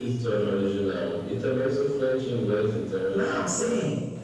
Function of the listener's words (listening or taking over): taking over